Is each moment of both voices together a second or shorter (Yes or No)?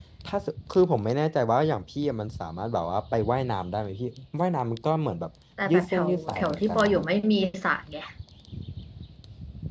No